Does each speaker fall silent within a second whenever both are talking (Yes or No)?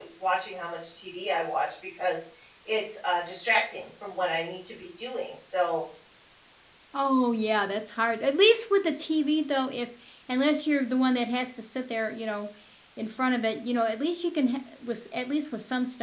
Yes